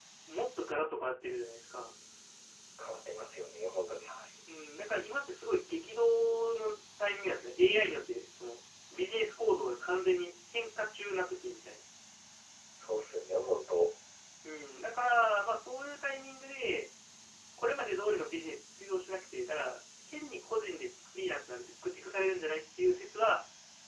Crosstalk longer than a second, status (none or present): none